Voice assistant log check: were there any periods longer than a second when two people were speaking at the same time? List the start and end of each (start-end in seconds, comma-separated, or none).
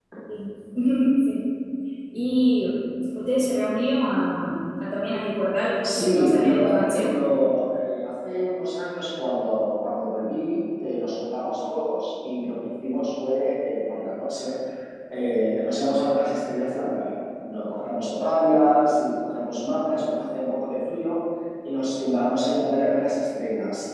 5.8-7.1